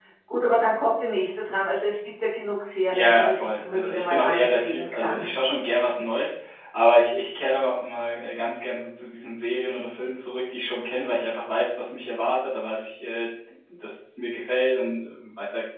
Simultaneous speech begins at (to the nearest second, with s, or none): 3 s